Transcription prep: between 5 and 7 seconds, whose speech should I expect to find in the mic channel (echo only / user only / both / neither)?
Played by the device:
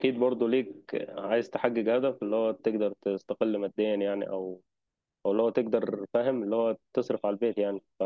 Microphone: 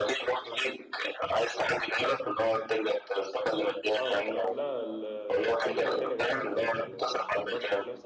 both